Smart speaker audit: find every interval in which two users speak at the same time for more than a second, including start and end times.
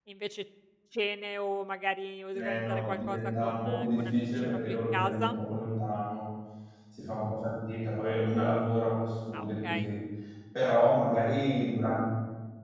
2.3-5.4

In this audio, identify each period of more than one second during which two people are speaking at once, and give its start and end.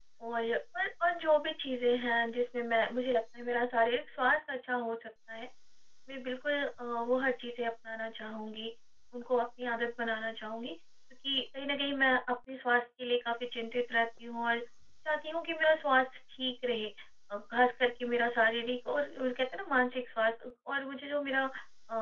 none

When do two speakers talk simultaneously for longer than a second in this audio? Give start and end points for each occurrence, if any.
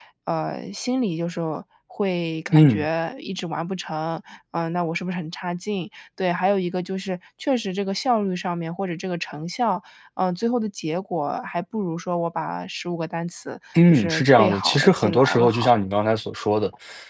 13.9-15.7

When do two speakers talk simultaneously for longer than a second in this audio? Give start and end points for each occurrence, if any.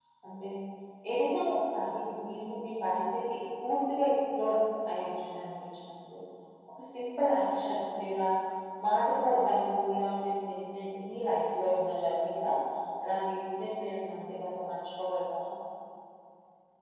none

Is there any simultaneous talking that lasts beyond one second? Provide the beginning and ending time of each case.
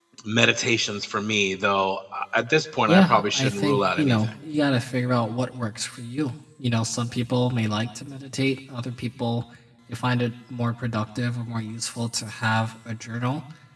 2.8-4.3

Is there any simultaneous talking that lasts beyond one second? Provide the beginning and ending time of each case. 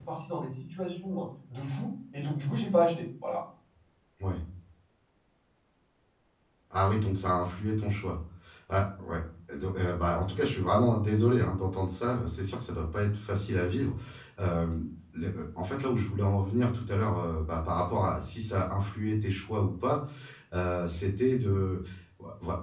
none

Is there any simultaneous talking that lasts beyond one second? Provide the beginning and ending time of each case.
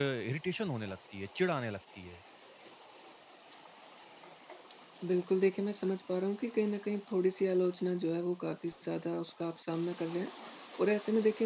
none

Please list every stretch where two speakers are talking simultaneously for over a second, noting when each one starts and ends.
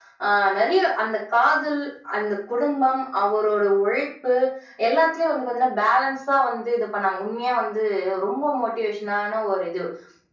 none

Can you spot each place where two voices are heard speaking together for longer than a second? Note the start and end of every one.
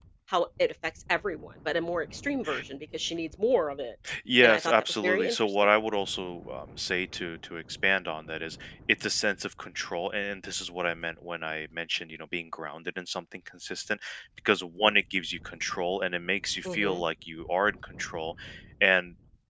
4.4-5.7

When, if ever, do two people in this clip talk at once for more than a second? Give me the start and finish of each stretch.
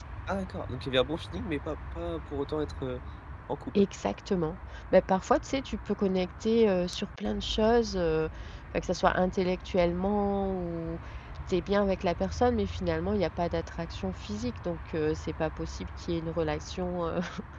none

